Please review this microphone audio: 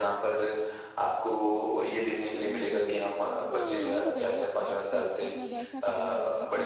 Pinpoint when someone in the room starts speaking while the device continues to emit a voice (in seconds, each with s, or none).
2.4 s